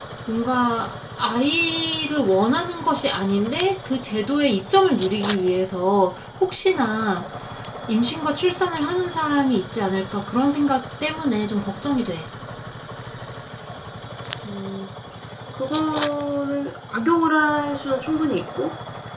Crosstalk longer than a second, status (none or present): none